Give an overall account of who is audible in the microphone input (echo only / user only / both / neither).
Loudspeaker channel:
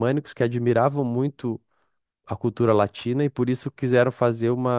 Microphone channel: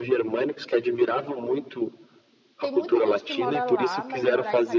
both